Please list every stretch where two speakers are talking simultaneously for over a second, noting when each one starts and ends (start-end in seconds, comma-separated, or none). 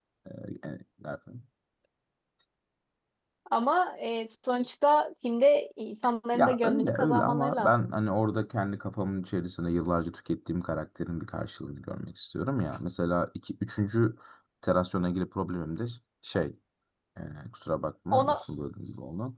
6.3-7.9